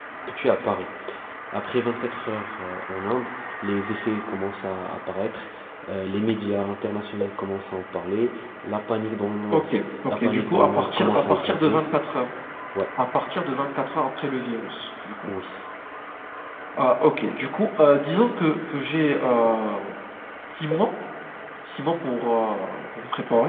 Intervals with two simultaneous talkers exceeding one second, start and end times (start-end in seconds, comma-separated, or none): 10.1-11.8